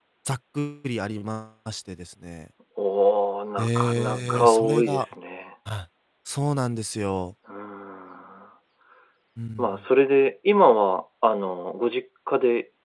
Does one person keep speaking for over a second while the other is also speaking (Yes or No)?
Yes